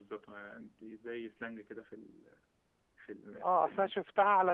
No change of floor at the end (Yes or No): No